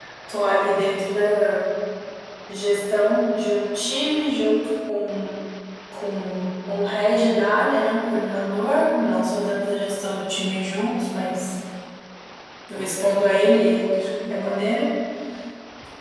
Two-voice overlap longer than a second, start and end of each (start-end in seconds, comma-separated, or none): none